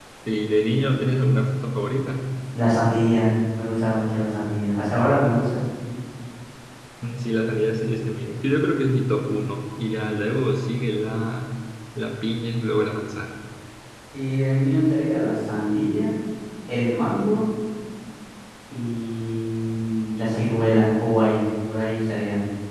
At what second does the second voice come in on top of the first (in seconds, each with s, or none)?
none